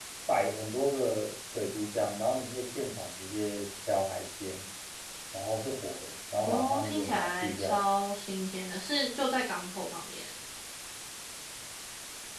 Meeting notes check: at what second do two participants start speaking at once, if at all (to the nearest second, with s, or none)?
6 s